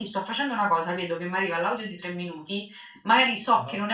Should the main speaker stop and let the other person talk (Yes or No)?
No